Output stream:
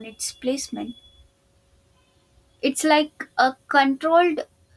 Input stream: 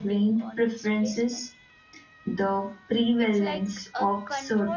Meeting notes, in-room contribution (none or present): present